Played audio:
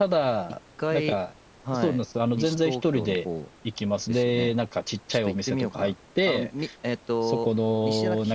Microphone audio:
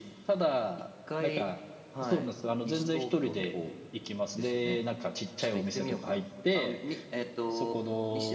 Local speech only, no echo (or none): none